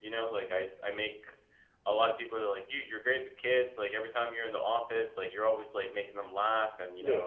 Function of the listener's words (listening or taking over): listening